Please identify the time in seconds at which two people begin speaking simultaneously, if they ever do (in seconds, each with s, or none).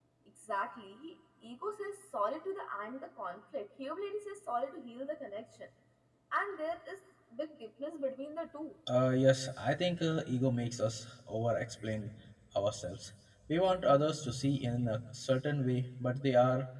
none